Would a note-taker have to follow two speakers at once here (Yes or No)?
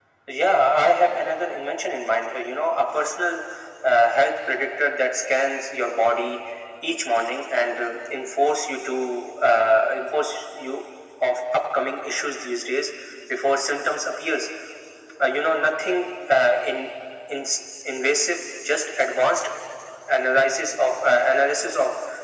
No